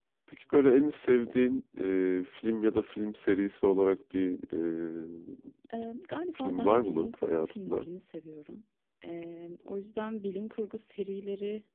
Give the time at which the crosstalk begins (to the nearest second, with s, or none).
6 s